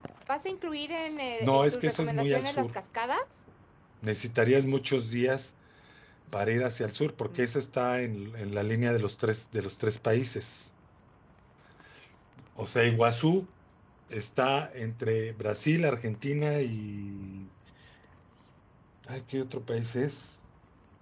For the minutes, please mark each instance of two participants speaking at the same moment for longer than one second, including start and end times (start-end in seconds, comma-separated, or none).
1.4-2.7